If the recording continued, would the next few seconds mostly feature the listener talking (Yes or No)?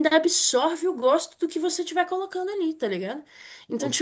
No